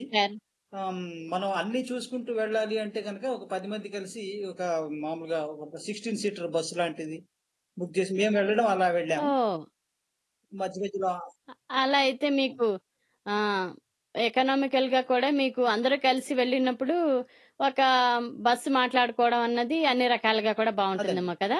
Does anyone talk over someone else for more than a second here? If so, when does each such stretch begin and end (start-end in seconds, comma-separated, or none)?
none